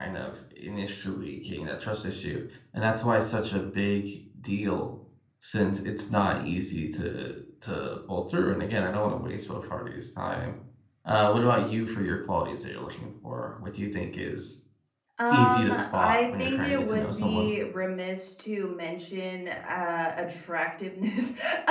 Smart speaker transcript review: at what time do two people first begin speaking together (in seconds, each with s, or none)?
15.3 s